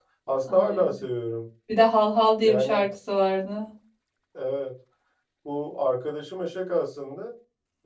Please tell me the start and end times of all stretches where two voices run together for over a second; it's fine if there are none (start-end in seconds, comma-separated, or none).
none